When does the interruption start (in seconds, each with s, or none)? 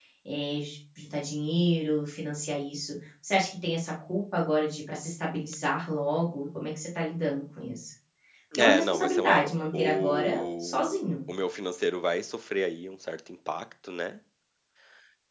8.6 s